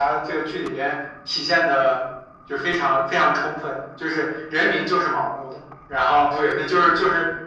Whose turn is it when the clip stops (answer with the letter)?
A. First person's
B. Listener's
A